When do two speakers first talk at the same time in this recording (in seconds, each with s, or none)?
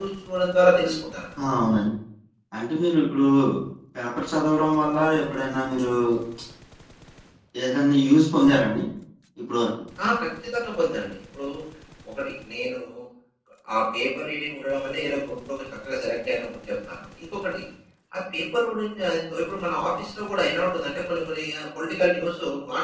none